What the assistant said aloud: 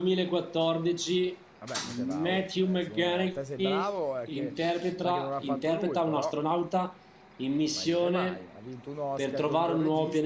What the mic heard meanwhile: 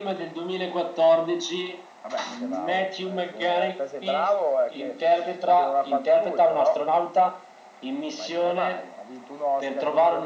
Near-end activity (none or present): none